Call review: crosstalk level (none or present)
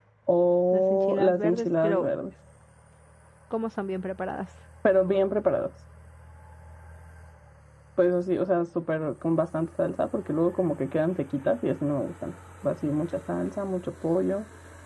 present